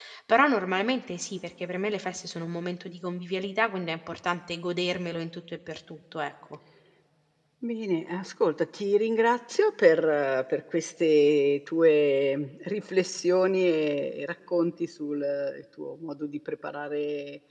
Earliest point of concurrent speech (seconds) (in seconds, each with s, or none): none